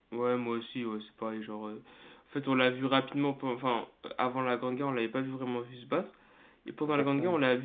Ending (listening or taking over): listening